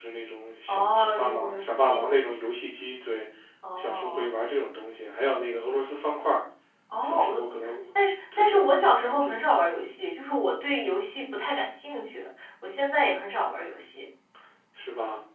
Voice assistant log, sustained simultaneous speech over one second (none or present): present